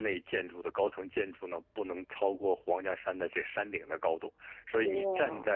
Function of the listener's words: listening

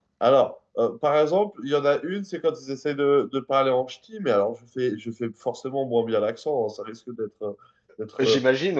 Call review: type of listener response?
listening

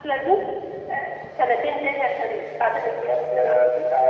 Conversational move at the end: taking over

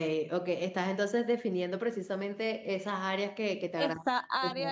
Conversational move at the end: taking over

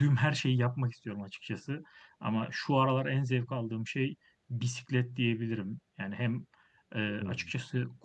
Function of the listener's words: listening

